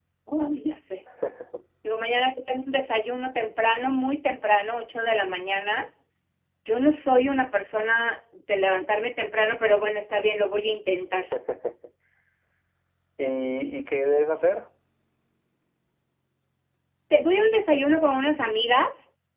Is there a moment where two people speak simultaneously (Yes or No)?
No